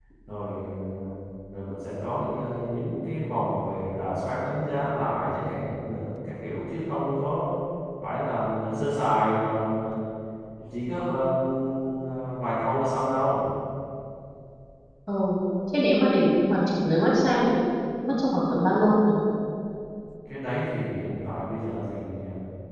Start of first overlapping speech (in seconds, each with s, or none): none